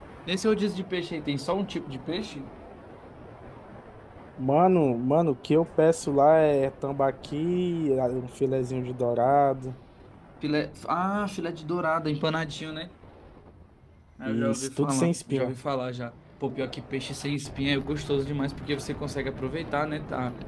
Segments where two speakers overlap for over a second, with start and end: 14.2-15.5

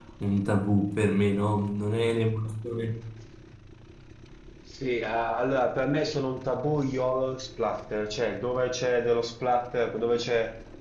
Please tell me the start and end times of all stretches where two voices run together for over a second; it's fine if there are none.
none

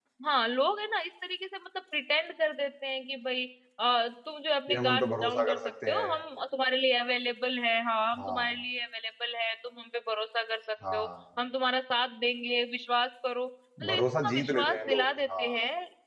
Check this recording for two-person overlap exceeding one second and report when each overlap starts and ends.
4.7-6.2, 13.9-15.5

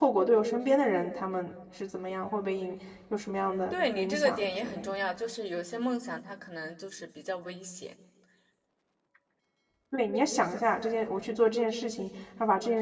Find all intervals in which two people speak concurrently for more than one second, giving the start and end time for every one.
3.7-5.1

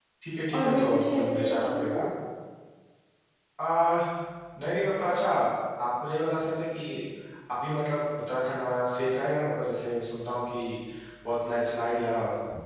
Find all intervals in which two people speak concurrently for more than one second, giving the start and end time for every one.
0.5-2.0

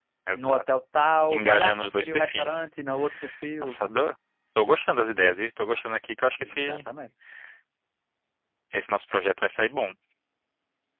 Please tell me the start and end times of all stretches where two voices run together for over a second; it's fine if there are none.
1.3-2.7

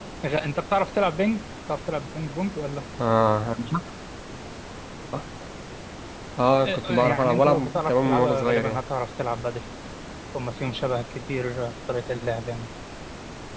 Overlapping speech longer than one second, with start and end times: 6.6-8.8

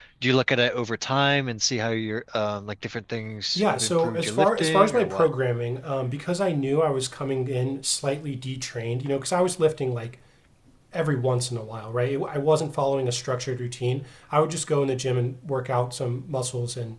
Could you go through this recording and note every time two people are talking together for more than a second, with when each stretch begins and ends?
3.6-5.3

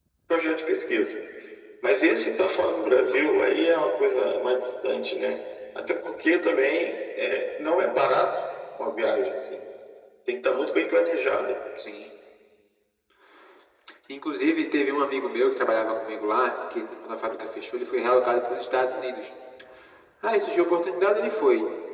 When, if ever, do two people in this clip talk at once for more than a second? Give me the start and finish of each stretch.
none

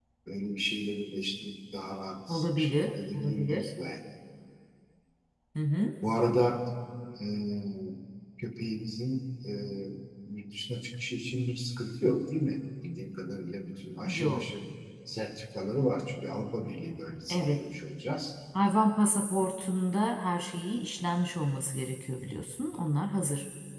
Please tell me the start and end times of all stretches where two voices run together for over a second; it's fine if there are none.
2.3-3.7

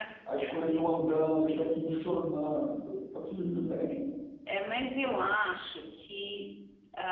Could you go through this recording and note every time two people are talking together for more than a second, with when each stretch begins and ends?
none

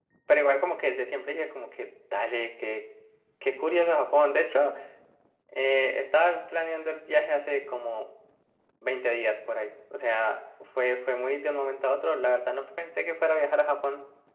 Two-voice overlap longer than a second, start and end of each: none

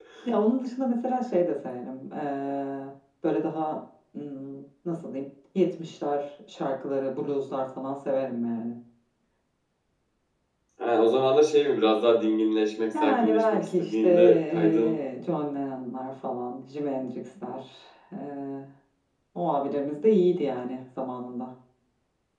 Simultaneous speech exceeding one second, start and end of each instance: 12.9-15.0

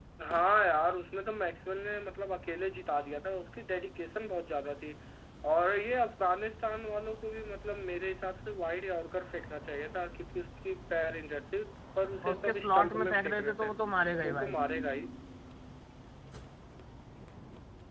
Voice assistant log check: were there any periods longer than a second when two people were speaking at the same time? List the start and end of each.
12.2-13.7

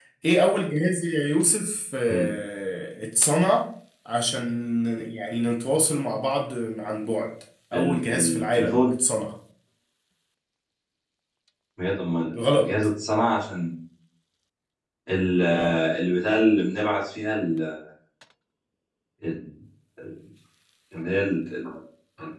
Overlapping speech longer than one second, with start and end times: 7.7-9.0

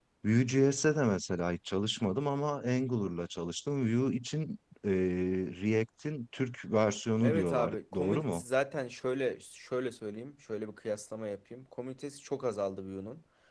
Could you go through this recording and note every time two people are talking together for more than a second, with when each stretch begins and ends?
7.2-8.4

